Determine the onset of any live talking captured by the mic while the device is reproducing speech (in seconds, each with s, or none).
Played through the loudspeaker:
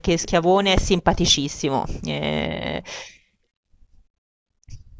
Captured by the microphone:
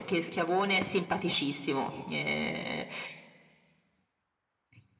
none